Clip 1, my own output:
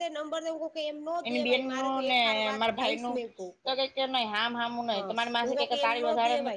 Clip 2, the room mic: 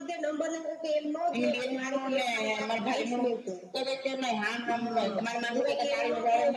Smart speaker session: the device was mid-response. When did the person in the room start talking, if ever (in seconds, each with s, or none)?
4.6 s